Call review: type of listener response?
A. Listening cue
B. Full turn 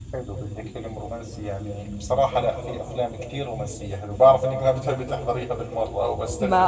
B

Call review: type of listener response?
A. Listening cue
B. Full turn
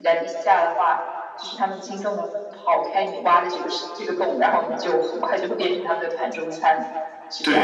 B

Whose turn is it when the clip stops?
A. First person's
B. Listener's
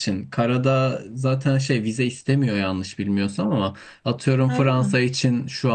A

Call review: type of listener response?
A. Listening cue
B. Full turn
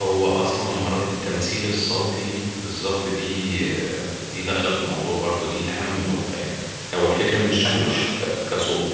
A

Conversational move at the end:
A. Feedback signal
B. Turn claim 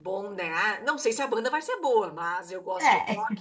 A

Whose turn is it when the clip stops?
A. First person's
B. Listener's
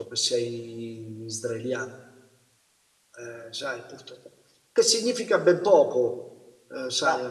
A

